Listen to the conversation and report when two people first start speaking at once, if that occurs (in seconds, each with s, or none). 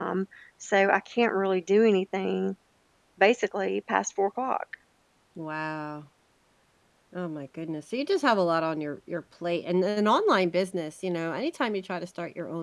none